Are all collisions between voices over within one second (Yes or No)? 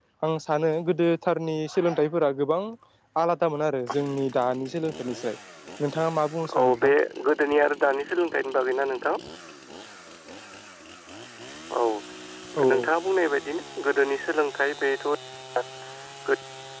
Yes